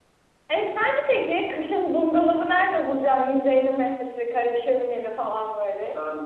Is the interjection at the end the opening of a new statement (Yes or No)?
Yes